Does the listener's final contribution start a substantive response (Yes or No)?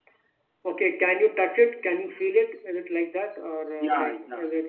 Yes